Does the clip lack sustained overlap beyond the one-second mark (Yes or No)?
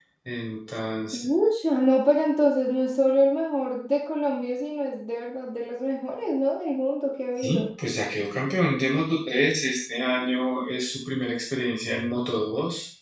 Yes